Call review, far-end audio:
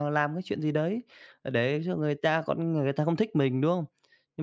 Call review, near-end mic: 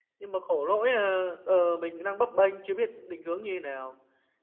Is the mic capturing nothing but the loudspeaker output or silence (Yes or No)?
No